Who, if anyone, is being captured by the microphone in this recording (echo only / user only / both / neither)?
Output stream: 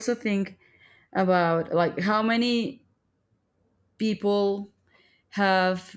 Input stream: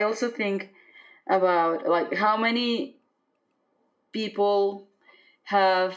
echo only